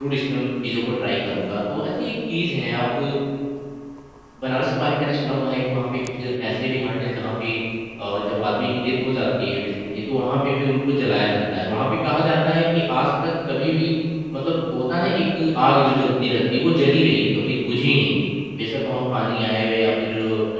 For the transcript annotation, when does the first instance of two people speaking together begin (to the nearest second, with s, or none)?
none